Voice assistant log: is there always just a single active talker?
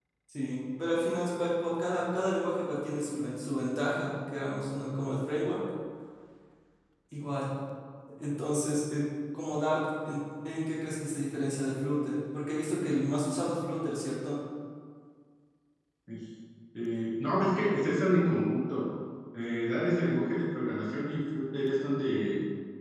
Yes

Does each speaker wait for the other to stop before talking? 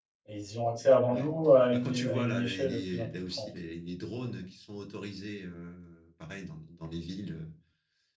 No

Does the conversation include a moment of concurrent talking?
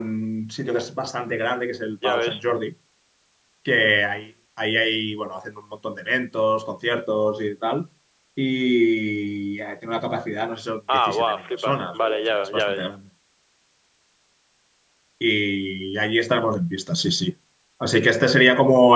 Yes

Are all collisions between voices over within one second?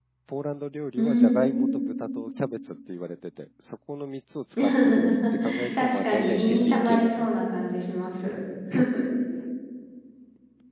No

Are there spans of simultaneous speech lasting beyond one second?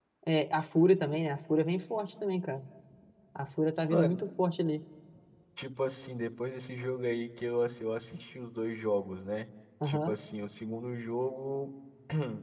No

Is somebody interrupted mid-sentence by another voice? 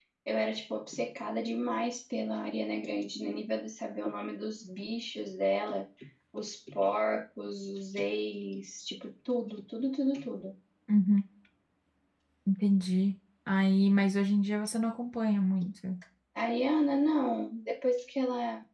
No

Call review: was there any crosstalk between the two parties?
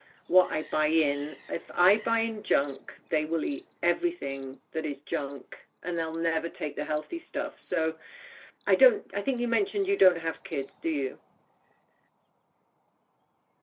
No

